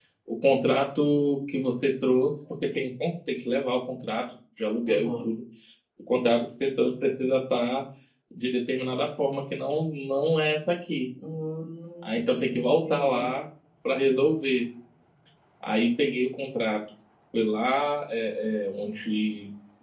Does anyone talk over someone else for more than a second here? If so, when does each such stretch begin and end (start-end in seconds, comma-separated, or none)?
12.0-13.3